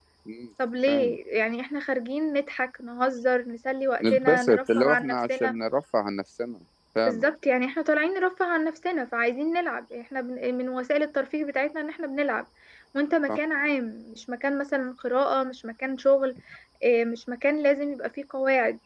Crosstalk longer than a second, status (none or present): present